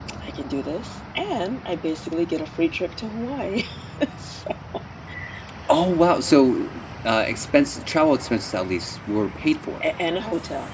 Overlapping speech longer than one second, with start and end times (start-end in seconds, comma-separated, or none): none